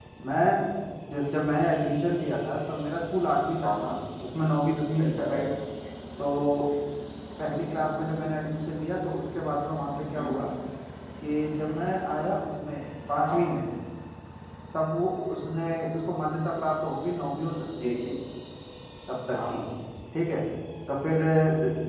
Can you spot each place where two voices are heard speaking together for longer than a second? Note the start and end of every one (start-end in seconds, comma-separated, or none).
none